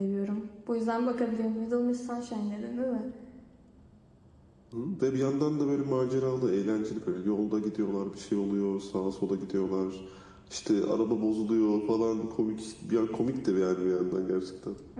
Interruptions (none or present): none